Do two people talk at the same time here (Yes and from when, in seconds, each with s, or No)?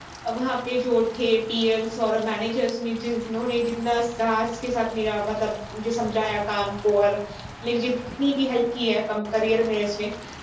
No